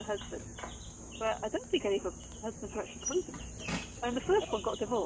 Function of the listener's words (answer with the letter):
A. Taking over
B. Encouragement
B